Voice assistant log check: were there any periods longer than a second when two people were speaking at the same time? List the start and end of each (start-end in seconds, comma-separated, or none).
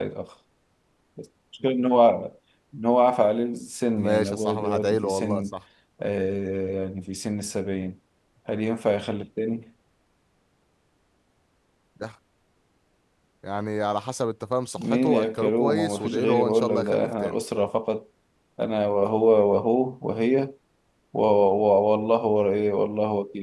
4.0-5.5, 14.8-17.4